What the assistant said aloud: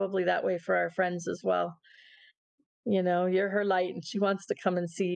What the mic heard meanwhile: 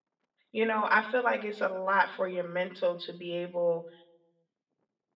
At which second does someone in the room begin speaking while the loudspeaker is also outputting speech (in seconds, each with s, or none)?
0.5 s